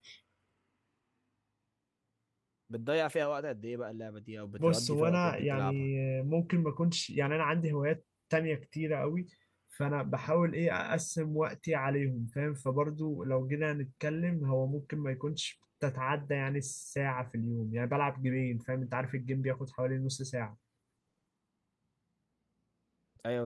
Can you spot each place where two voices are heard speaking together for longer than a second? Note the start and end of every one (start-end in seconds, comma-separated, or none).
4.6-5.9